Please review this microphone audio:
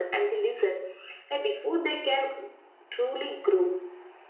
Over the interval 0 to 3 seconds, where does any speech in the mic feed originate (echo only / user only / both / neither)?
echo only